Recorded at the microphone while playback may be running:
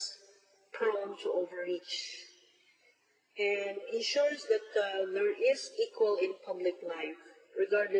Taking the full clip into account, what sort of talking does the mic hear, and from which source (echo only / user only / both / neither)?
echo only